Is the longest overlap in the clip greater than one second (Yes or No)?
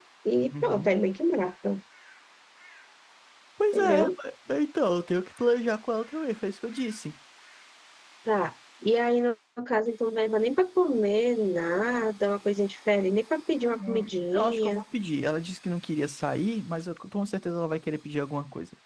Yes